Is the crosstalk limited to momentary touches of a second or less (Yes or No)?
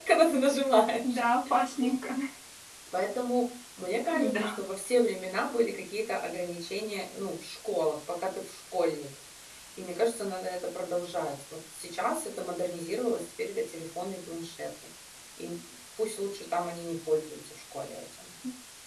Yes